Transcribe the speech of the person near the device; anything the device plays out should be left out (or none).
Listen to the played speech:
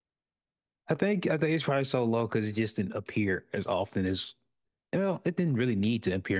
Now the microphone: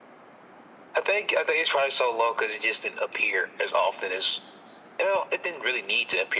none